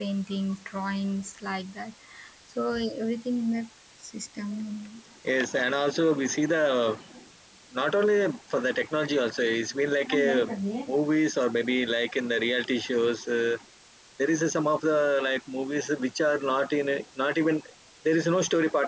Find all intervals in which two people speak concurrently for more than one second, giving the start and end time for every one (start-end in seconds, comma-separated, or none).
none